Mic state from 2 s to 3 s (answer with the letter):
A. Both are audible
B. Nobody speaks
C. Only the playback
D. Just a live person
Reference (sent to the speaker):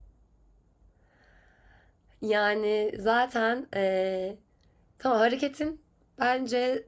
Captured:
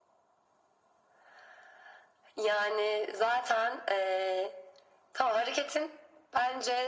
C